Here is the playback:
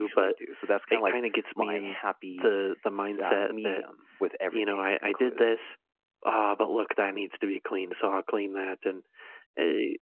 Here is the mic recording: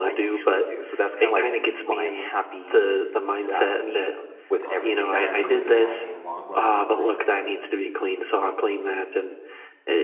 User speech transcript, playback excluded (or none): Uh, Saturdays we have a long run in the morning